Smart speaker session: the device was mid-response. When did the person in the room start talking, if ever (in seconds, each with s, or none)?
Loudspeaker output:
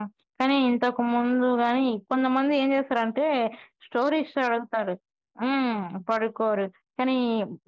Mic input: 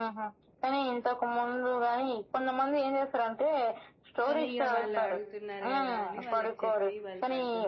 4.3 s